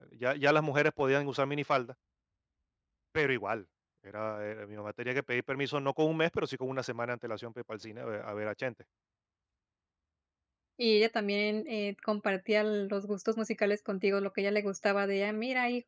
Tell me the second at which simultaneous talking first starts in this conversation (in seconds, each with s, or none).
none